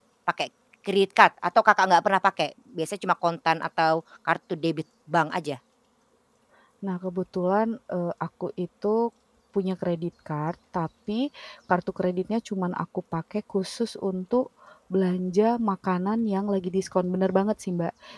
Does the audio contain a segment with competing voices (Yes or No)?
No